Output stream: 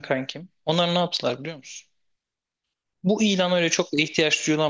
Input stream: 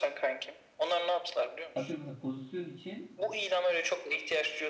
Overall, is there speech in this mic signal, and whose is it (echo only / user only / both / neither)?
both